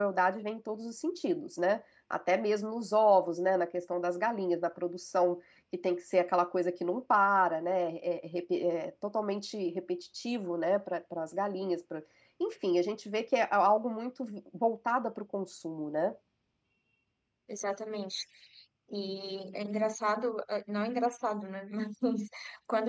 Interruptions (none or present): none